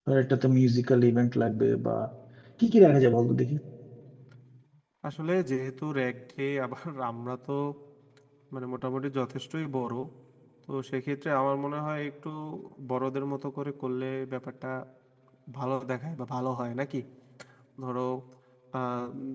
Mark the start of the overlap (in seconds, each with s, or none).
none